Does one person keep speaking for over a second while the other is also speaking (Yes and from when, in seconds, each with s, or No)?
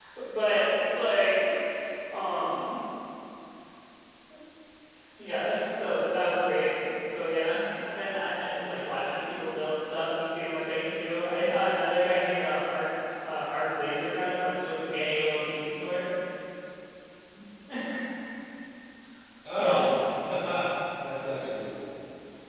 No